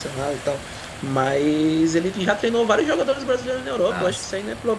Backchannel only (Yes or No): Yes